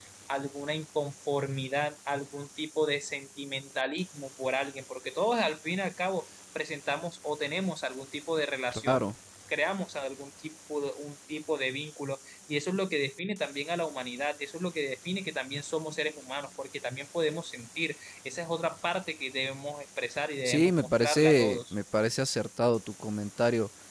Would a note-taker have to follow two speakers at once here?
Yes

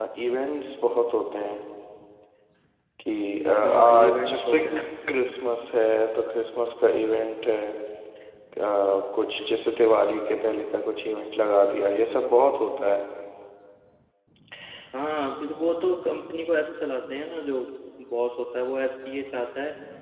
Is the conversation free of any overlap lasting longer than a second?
No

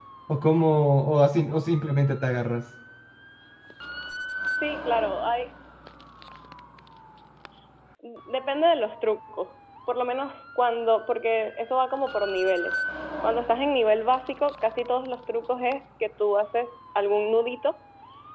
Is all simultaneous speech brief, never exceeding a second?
Yes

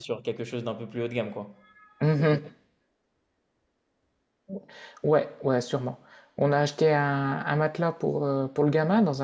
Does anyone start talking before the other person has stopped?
No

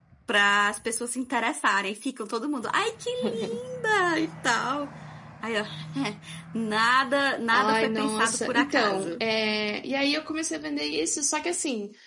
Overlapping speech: Yes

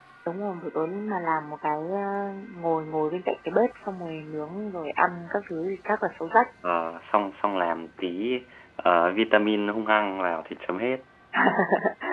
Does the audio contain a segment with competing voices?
No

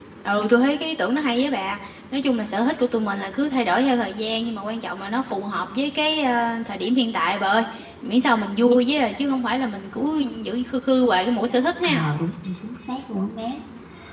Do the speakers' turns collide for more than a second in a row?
No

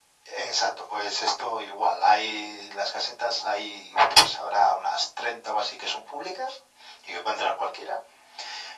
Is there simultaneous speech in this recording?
No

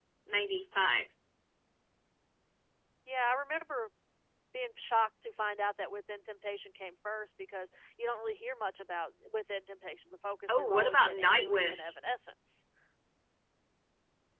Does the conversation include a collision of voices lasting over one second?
Yes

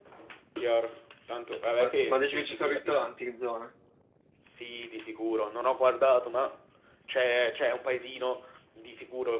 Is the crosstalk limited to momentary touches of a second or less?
No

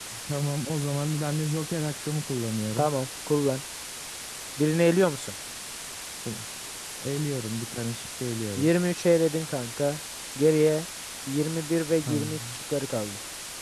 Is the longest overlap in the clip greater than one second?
No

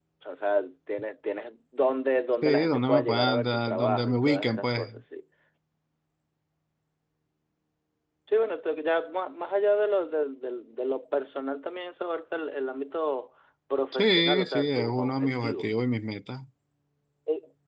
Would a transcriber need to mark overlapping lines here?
Yes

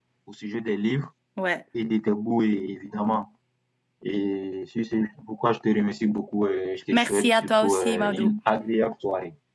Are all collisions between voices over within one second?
No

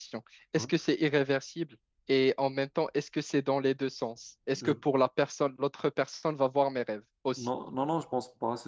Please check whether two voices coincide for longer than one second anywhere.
No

